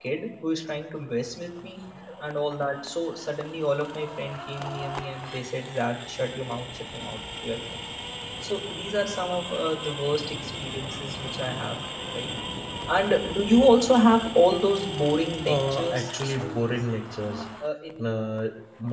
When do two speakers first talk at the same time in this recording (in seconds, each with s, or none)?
15.4 s